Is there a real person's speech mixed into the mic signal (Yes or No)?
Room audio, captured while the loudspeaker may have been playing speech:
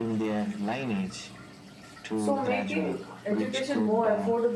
Yes